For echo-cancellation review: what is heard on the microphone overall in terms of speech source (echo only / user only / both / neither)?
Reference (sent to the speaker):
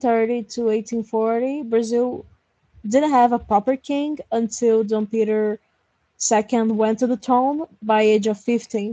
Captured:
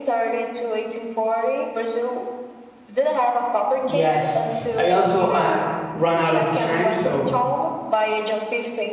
both